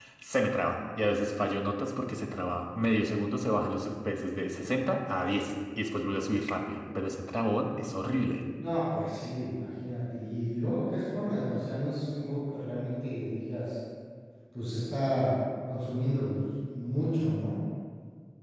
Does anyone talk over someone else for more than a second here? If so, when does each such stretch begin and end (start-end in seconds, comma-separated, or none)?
none